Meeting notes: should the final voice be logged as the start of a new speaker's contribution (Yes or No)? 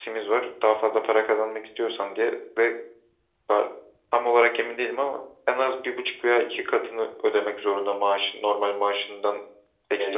Yes